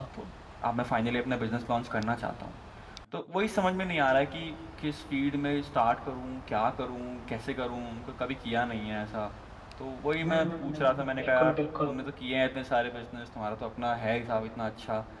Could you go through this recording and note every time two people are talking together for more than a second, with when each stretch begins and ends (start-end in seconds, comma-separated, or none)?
10.2-11.9